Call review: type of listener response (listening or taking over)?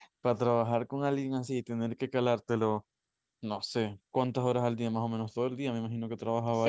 taking over